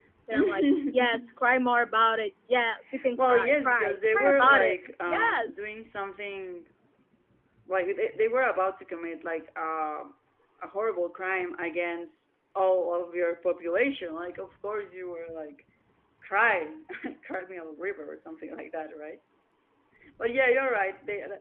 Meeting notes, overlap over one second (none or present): present